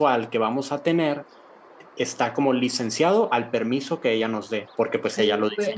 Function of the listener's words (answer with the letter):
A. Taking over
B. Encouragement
A